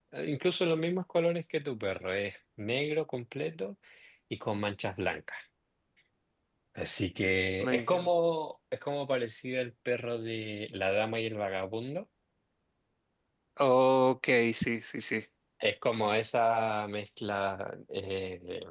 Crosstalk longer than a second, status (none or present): none